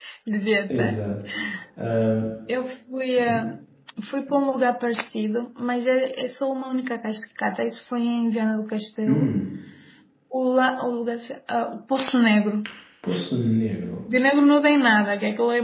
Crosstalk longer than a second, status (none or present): none